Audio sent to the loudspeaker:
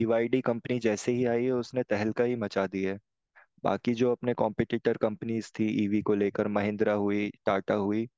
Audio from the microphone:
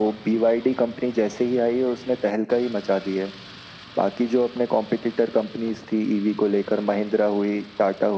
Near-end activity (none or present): none